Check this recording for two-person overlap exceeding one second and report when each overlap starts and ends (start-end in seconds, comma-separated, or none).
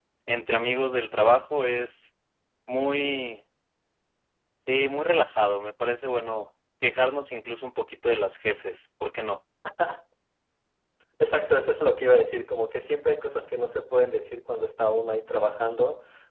none